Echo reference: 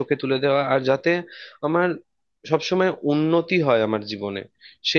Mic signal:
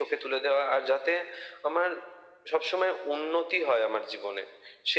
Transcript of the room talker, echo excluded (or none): none